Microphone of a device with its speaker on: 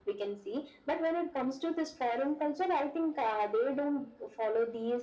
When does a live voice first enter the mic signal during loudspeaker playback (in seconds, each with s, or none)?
none